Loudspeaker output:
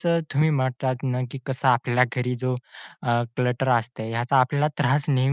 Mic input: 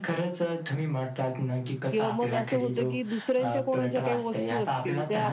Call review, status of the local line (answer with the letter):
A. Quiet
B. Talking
B